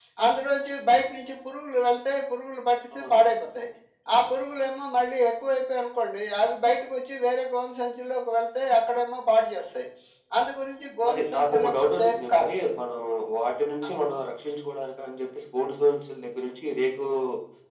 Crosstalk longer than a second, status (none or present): present